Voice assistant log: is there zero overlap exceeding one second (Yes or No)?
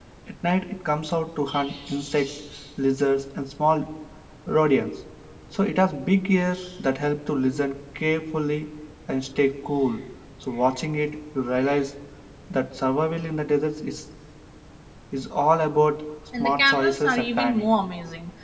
No